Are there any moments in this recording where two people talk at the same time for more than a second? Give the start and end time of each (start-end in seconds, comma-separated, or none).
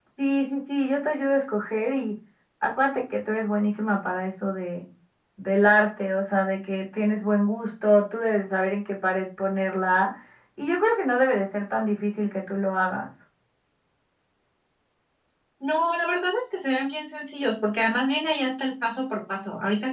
none